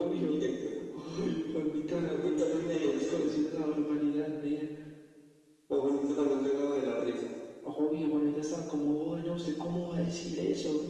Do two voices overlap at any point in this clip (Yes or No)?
Yes